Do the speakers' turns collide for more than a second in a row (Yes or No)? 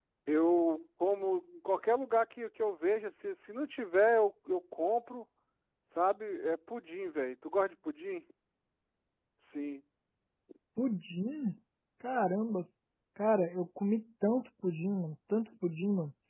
No